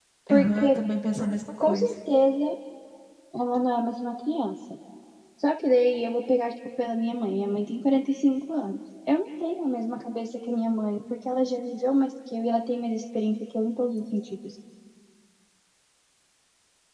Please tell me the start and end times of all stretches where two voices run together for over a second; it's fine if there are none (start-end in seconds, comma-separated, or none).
none